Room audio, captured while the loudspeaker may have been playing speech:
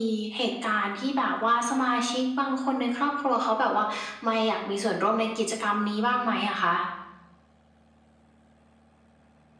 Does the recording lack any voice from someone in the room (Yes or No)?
Yes